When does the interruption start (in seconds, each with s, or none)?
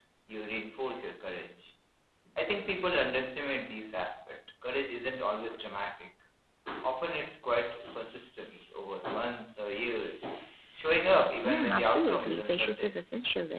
11.4 s